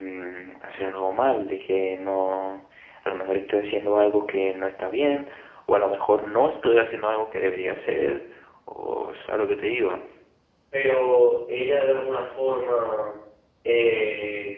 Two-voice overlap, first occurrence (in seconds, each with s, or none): none